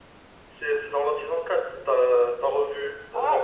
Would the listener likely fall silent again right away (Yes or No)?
No